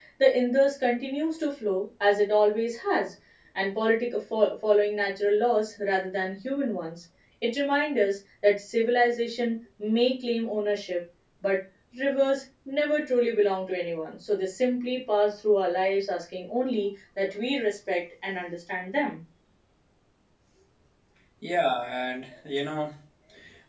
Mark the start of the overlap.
none

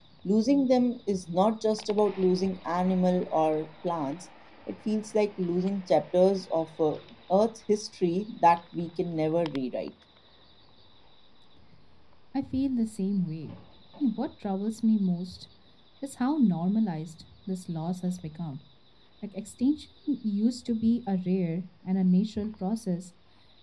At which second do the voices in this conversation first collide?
none

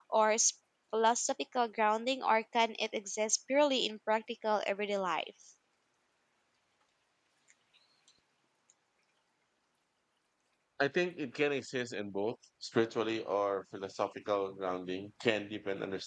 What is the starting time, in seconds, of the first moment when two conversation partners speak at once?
none

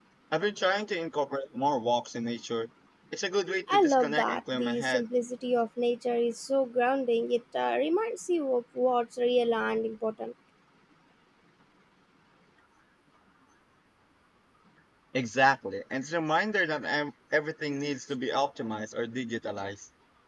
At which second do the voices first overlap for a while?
3.7 s

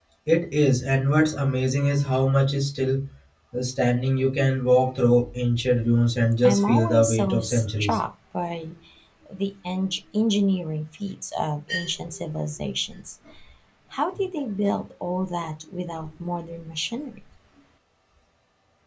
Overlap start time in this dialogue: 6.4 s

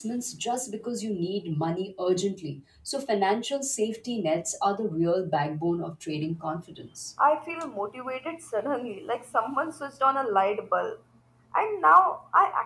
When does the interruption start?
none

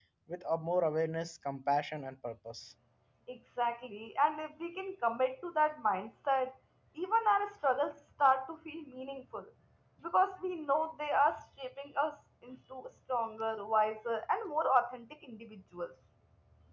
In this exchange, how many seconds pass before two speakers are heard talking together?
none

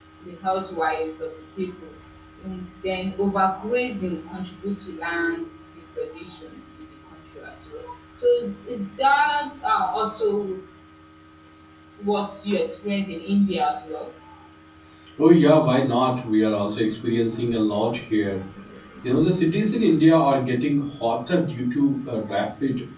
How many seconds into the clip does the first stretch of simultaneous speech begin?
none

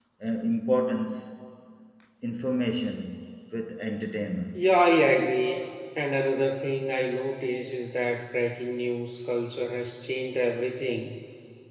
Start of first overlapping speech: none

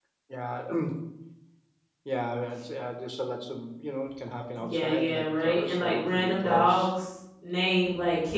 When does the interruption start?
4.6 s

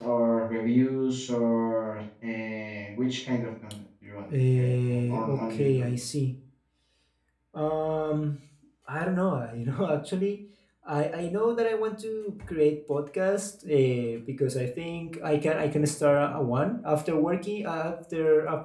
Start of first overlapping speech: 4.3 s

